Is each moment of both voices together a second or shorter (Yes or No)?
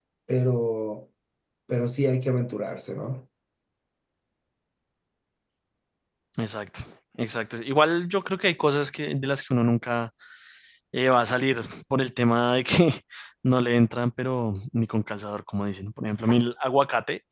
Yes